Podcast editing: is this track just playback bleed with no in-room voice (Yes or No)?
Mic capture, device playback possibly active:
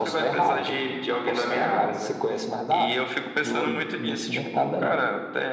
Yes